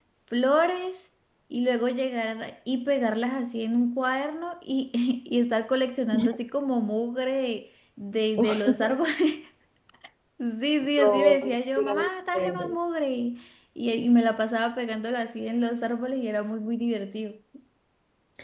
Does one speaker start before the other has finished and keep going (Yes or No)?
Yes